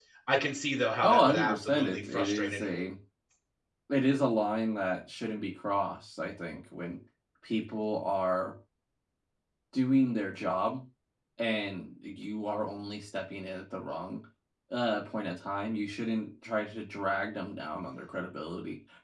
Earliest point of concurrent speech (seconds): 1.0 s

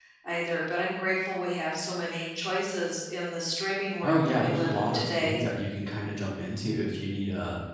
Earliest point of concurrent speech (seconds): 4.0 s

